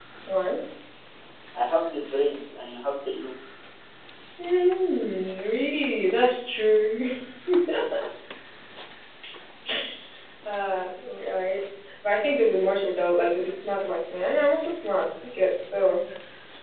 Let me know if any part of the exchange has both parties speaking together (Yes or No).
No